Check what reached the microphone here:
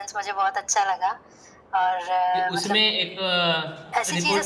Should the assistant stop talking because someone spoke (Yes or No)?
Yes